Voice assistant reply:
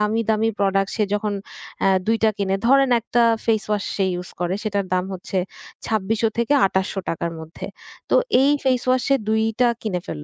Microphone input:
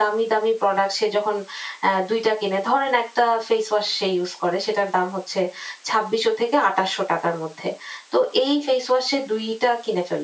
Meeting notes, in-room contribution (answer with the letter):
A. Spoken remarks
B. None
B